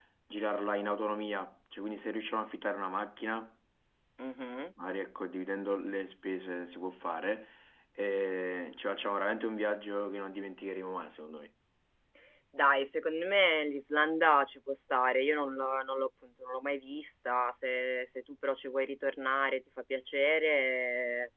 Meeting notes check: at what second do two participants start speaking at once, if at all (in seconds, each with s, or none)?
none